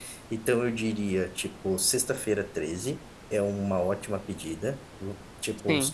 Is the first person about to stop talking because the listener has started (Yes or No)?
No